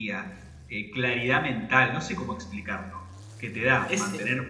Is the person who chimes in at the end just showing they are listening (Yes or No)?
Yes